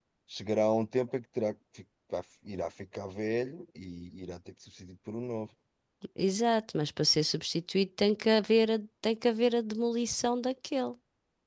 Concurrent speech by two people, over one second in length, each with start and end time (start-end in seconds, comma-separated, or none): none